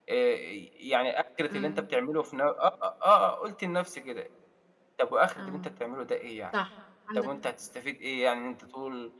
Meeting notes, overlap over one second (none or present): none